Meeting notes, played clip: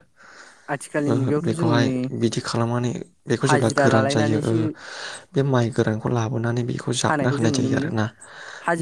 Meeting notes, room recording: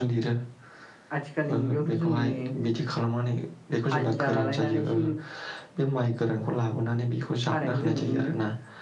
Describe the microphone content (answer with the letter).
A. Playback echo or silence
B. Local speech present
A